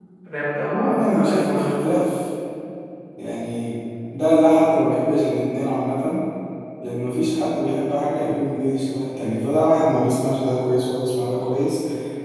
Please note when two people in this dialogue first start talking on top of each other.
0.7 s

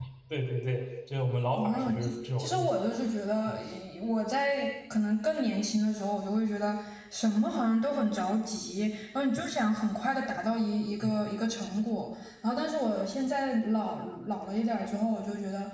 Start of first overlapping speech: 1.6 s

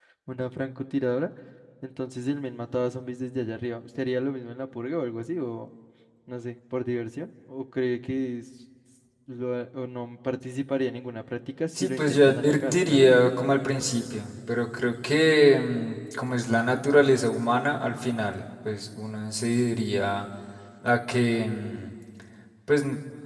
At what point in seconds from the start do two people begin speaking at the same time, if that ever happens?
11.8 s

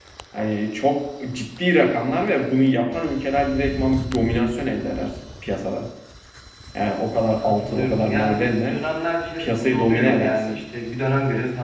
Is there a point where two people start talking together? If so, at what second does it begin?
7.3 s

